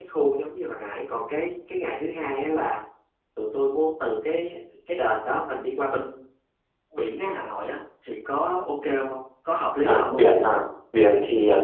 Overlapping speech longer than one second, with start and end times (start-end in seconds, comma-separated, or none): none